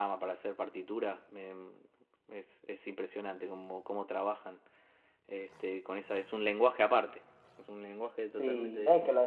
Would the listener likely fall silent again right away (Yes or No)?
No